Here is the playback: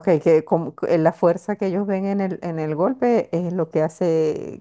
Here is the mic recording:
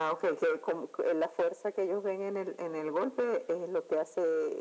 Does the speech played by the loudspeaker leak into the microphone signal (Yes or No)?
Yes